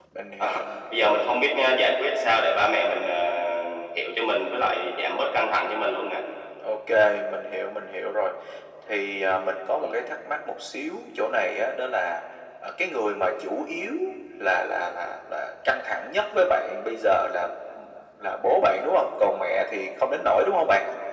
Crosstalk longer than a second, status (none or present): none